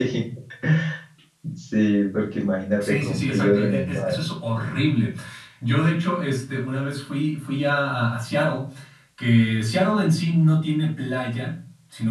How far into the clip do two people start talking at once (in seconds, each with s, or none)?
2.8 s